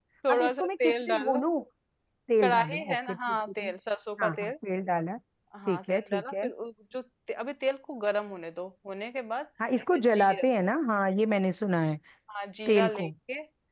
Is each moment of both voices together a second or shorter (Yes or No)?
No